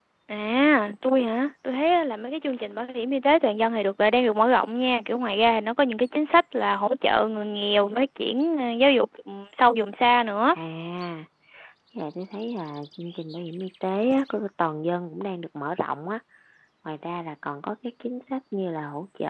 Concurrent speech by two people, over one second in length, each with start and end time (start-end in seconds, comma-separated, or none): none